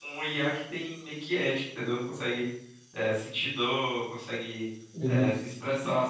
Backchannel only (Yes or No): Yes